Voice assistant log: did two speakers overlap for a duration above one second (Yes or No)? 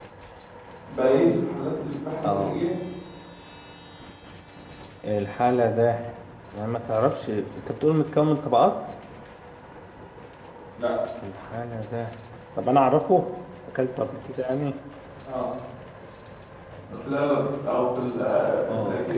No